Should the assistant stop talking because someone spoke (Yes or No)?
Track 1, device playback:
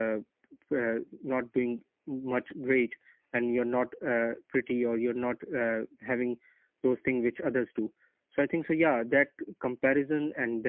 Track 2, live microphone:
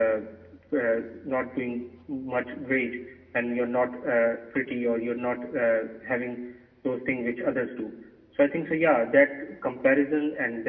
No